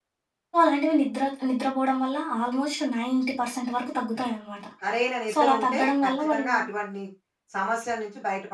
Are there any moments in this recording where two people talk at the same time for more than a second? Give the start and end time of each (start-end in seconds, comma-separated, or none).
5.3-6.5